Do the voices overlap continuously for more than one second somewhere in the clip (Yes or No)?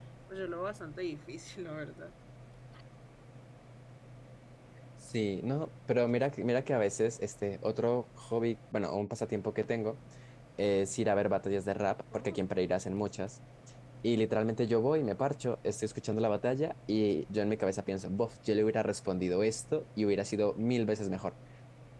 No